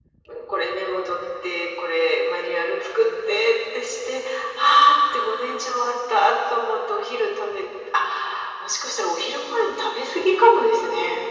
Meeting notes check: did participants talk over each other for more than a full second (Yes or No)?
No